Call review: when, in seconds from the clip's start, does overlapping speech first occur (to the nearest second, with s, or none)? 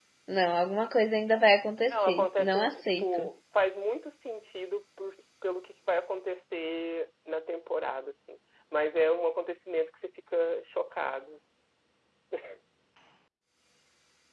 2 s